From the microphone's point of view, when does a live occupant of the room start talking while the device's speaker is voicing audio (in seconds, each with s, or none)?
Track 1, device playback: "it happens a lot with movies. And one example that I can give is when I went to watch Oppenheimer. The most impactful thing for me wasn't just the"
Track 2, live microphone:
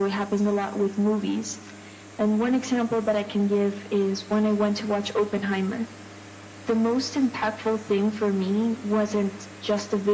none